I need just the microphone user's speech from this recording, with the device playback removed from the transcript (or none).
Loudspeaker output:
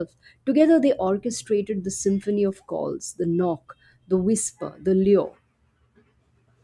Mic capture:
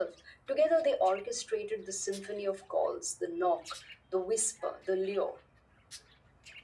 none